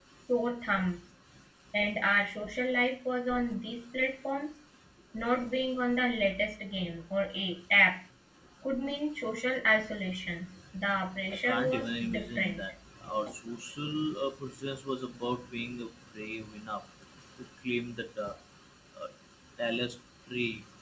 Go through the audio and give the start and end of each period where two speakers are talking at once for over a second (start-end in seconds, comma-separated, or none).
11.3-12.6